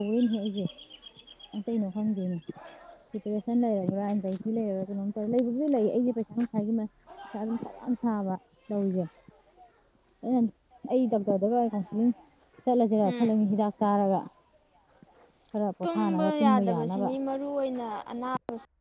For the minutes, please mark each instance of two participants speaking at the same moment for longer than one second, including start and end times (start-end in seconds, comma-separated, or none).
15.8-17.1